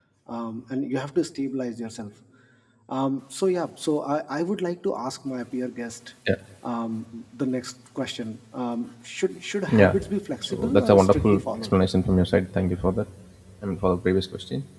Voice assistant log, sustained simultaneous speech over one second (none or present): present